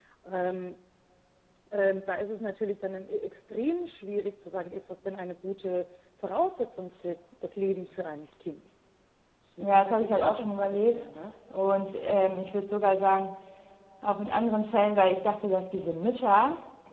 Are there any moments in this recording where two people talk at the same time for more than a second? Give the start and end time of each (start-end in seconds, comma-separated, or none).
9.6-11.0